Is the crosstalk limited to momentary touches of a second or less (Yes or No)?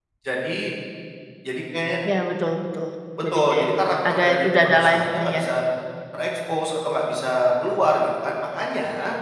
No